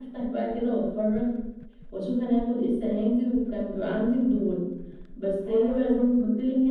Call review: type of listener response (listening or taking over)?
listening